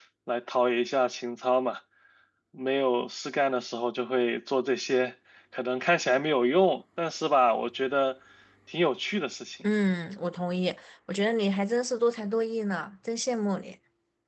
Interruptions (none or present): none